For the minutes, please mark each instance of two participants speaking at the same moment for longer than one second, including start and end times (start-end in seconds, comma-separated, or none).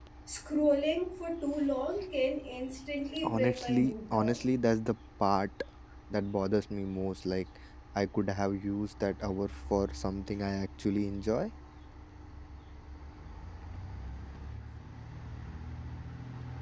3.2-4.4